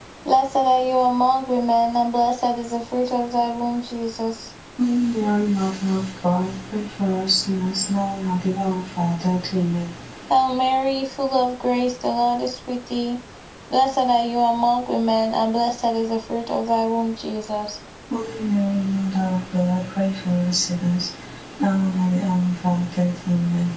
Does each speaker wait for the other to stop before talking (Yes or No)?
Yes